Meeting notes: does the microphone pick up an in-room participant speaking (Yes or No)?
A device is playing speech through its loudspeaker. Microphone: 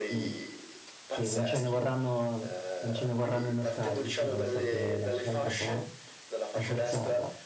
Yes